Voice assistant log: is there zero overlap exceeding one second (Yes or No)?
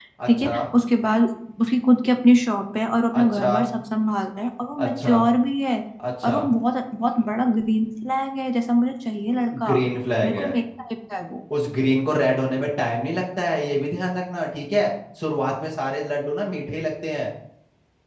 Yes